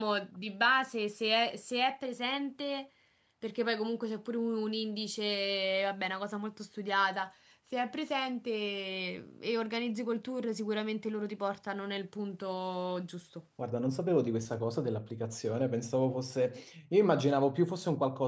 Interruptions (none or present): none